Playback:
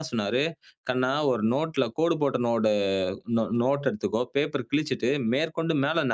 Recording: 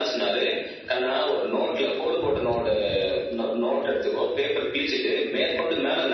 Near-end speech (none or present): none